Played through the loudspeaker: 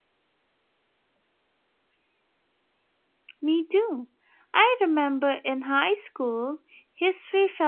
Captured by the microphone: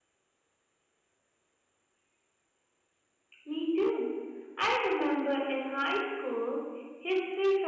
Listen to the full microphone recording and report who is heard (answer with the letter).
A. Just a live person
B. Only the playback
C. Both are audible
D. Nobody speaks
B